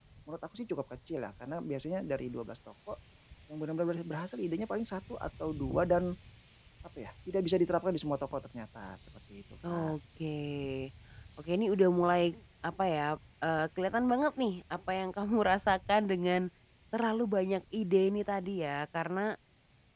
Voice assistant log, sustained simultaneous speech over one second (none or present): none